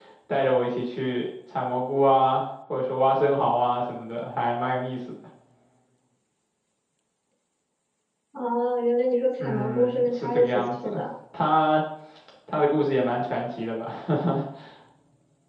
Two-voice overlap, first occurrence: 9.4 s

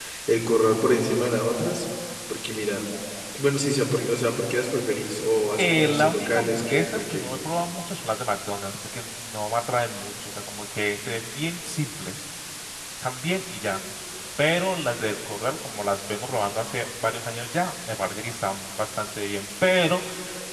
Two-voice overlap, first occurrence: 5.6 s

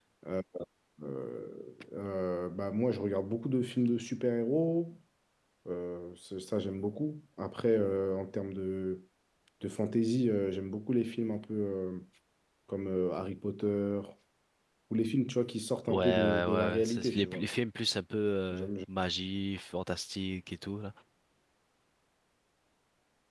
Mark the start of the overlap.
15.9 s

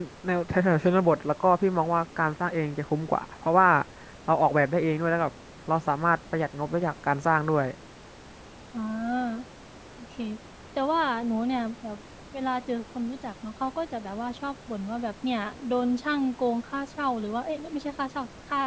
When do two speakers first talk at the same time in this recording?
none

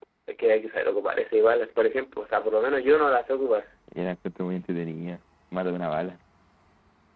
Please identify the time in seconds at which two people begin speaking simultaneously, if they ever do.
none

